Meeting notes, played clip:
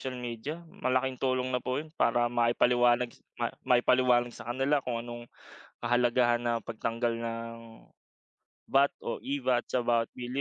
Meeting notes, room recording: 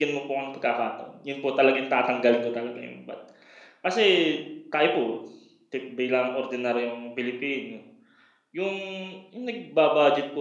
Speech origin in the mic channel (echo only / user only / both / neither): user only